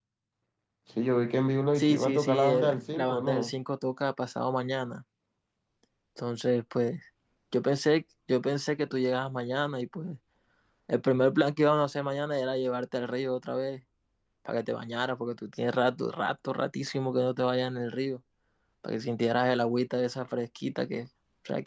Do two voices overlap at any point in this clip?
Yes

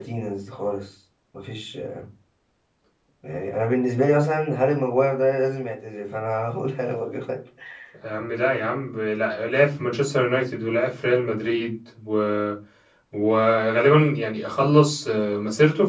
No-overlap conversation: Yes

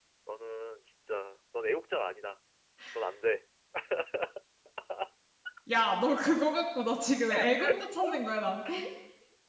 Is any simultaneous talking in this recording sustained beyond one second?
No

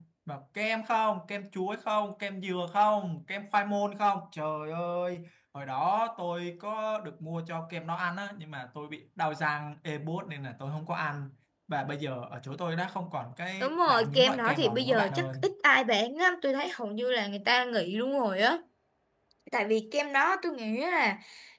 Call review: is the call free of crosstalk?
No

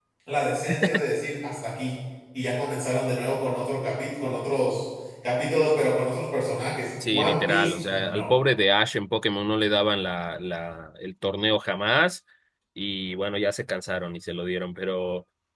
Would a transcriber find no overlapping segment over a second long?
No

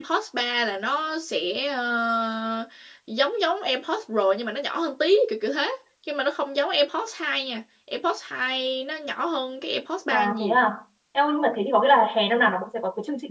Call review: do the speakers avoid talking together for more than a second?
Yes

